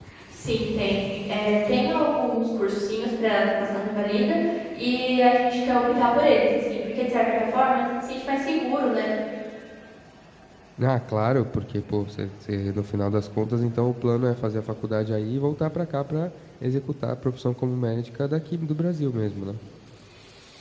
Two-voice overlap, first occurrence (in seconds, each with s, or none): none